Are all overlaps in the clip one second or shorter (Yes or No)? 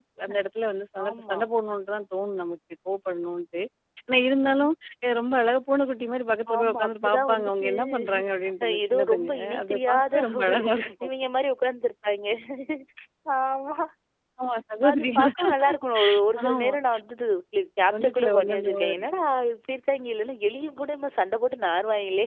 No